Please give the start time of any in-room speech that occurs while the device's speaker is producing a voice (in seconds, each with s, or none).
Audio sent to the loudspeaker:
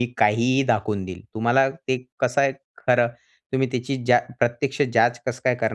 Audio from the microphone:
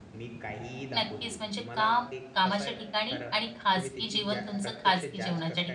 0.9 s